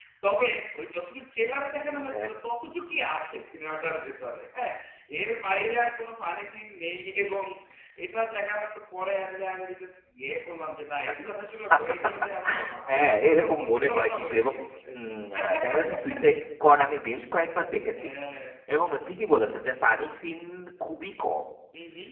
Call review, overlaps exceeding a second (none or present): present